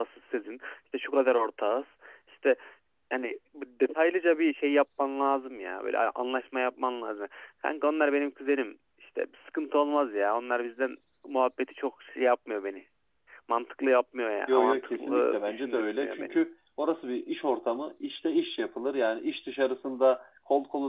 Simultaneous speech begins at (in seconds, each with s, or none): 14.5 s